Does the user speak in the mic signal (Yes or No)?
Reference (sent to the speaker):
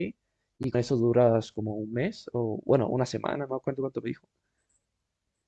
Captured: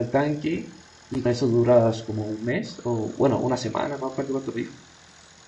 No